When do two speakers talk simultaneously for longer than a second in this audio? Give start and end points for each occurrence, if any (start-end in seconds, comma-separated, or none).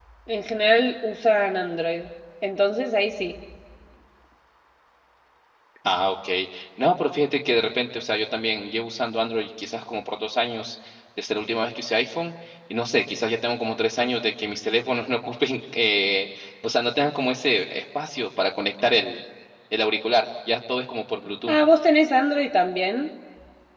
none